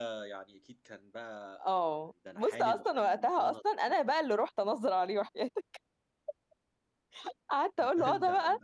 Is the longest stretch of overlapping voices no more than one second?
No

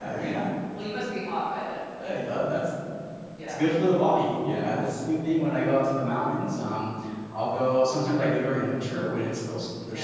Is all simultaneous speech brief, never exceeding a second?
Yes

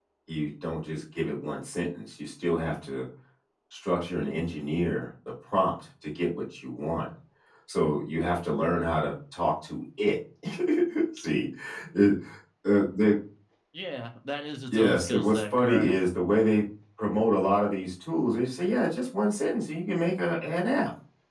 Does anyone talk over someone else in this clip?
Yes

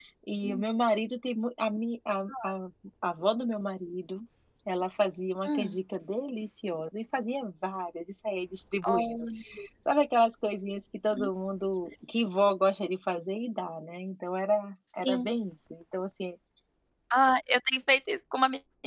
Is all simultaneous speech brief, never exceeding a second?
Yes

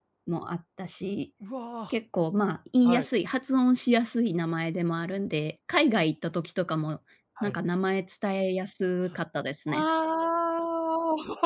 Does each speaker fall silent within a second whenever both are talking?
Yes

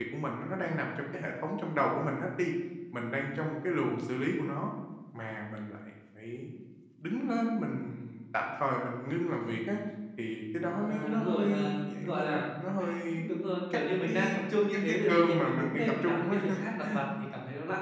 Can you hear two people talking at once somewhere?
Yes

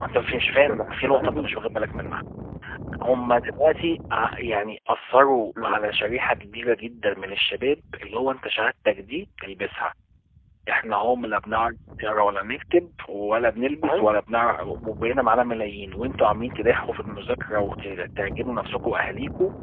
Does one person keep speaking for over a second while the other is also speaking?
Yes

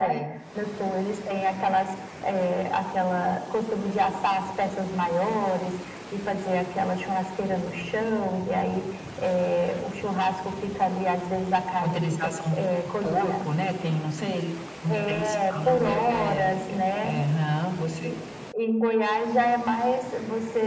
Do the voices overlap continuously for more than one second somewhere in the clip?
Yes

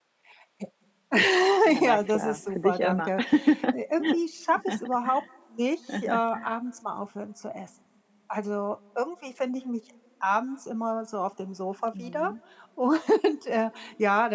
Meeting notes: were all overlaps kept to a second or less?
No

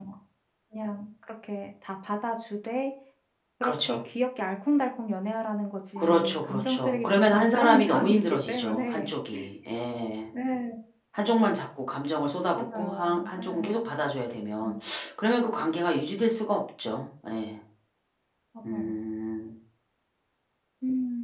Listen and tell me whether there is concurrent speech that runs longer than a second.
Yes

